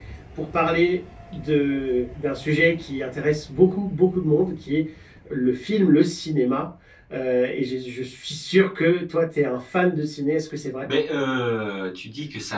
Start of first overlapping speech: none

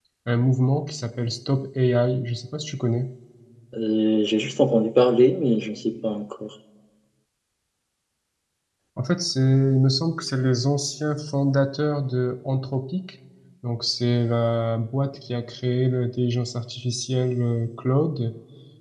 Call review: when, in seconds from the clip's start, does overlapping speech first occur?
none

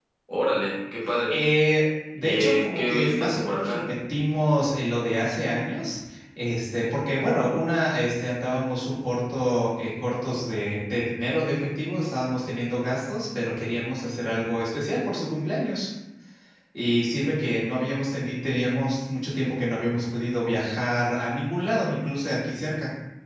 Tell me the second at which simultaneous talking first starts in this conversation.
2.2 s

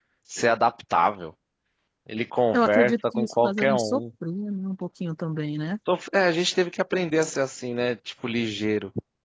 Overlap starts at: 2.5 s

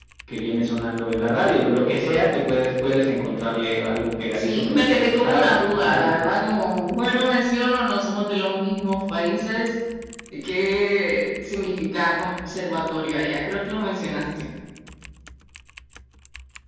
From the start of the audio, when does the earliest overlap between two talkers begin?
4.3 s

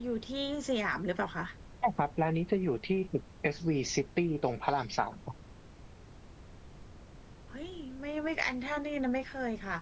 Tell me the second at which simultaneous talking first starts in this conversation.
none

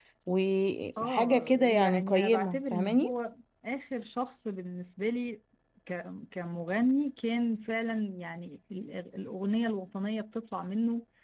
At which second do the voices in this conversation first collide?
1.0 s

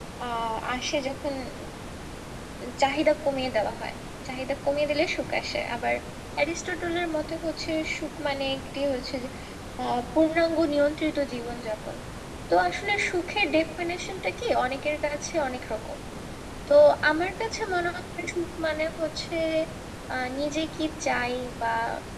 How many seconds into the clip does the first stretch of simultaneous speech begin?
none

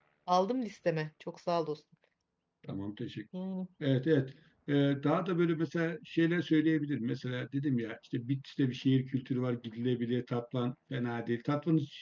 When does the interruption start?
none

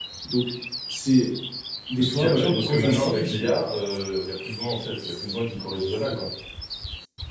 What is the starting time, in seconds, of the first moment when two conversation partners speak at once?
2.0 s

